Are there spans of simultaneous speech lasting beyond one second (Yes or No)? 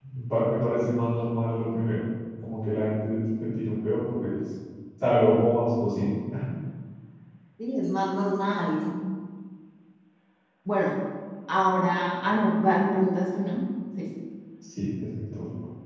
No